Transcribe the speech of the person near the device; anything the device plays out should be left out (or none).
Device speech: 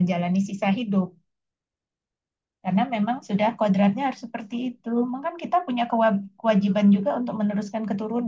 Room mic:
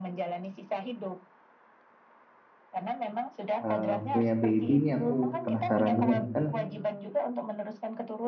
eh, punya baby ini aku penasaran juga nih kan